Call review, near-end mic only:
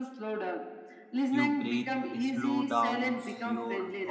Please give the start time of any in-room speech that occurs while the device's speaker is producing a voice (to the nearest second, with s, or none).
1 s